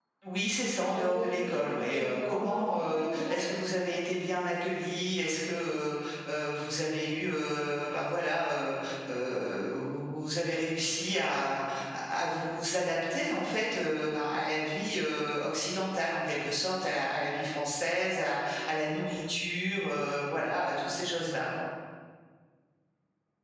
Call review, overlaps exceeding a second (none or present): present